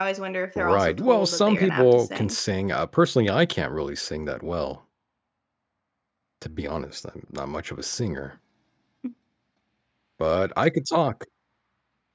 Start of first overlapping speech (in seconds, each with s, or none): 0.6 s